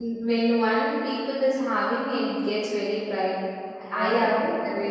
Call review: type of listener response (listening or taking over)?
taking over